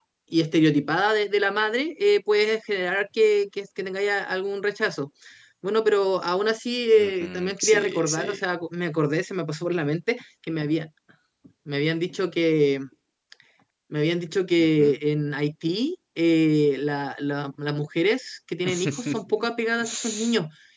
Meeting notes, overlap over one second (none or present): present